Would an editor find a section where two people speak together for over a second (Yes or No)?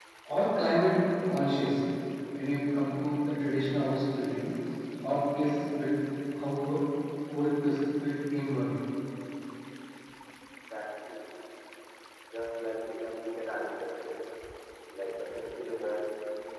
No